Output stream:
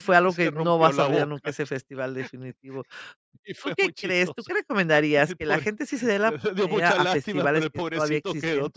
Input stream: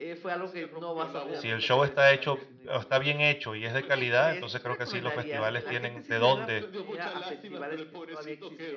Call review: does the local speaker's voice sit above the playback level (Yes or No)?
Yes